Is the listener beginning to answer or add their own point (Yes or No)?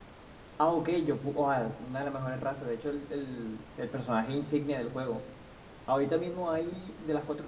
No